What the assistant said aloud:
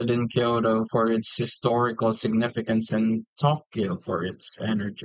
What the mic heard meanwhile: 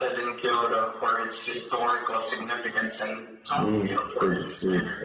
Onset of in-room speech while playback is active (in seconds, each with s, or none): 3.5 s